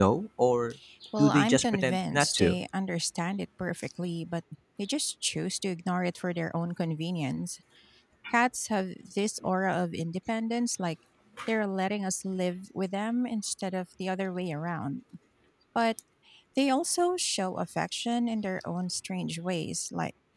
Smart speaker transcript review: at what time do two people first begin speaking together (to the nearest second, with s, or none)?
1 s